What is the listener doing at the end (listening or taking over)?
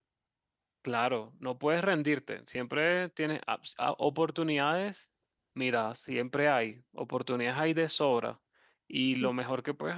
listening